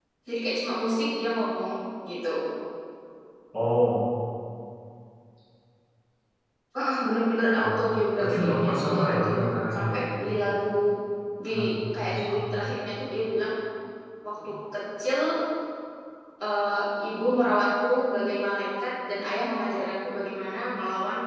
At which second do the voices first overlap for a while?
7.6 s

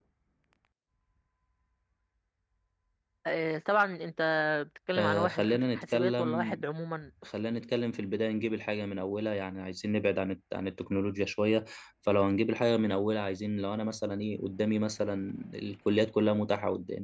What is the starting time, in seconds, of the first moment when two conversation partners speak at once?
5.0 s

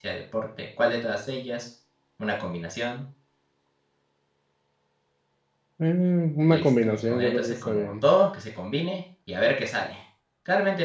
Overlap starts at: 6.5 s

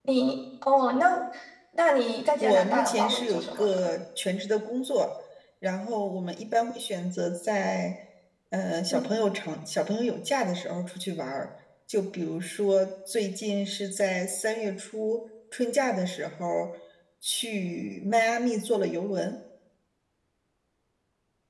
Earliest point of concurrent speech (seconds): 2.4 s

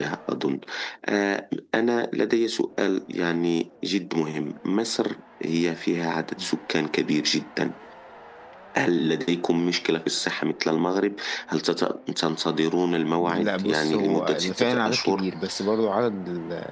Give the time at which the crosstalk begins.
13.2 s

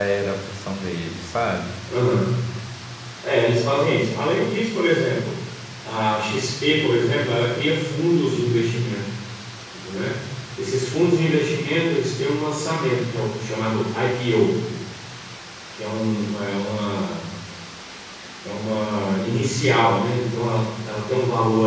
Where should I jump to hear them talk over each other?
none

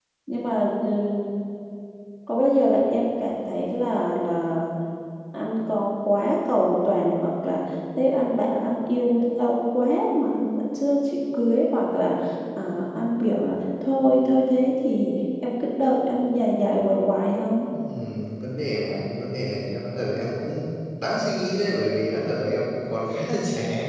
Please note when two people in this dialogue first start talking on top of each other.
none

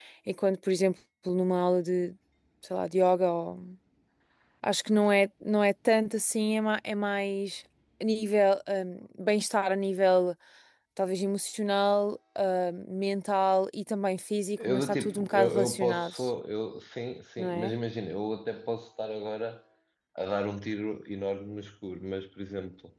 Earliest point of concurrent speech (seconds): 14.7 s

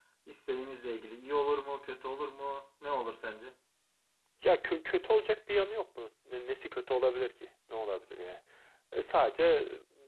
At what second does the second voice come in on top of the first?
none

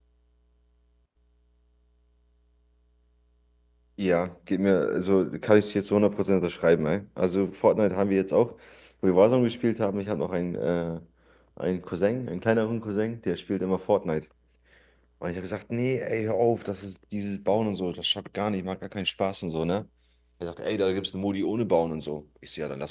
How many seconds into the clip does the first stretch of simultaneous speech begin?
none

